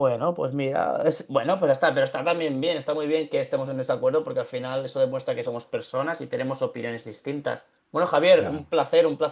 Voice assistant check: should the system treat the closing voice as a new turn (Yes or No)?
No